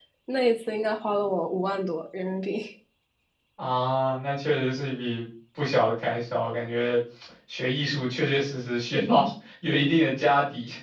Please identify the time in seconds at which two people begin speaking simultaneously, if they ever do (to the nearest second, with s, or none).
none